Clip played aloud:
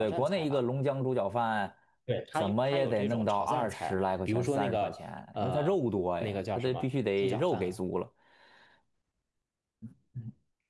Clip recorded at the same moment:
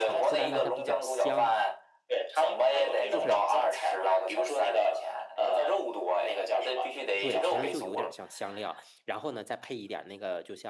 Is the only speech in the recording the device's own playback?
No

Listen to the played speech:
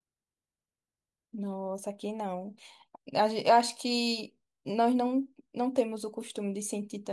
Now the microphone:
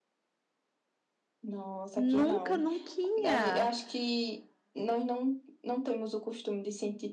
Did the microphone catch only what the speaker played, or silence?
No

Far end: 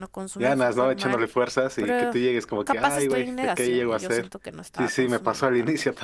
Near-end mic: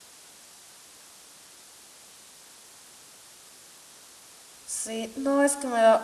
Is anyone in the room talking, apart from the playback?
Yes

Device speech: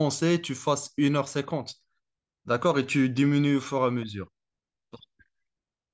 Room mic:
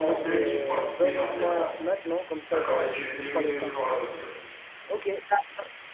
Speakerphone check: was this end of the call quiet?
No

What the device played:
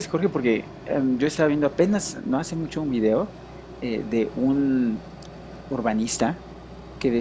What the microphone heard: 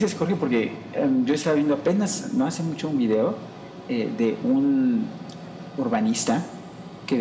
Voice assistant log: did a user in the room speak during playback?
No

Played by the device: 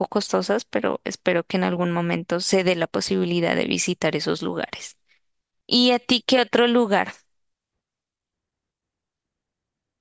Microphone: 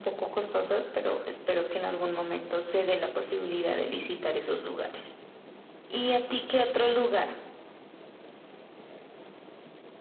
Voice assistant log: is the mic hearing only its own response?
Yes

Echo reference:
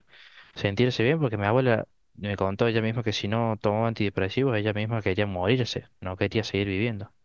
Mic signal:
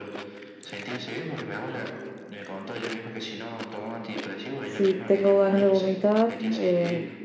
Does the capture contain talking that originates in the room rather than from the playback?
Yes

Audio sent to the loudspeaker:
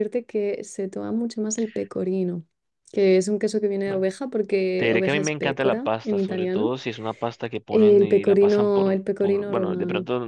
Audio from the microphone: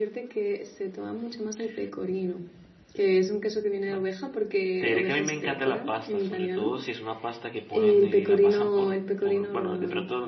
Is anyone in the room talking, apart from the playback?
No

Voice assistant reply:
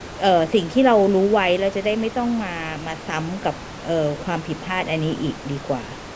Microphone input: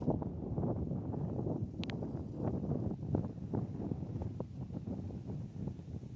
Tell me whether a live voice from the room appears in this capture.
No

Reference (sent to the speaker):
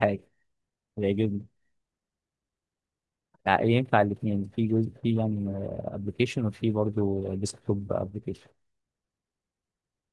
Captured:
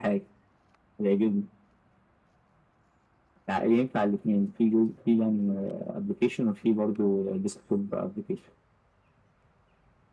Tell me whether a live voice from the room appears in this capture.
No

